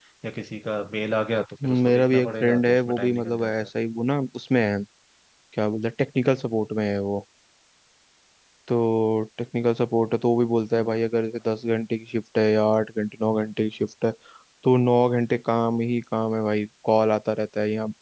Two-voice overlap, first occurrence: 1.6 s

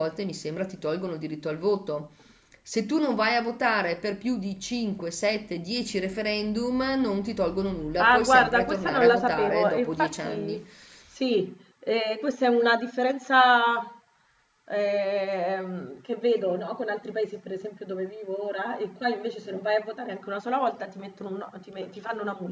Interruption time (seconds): 8.0 s

